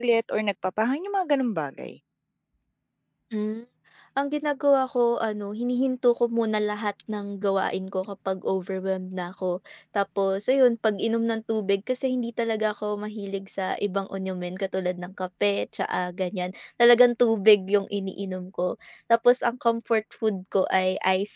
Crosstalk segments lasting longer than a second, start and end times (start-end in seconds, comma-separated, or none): none